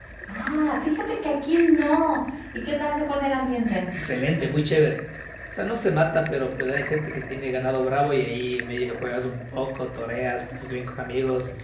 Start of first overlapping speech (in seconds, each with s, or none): none